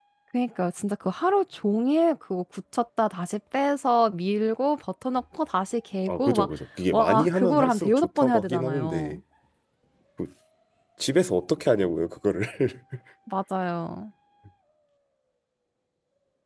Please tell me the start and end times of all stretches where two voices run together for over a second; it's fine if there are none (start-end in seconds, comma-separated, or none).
6.9-9.2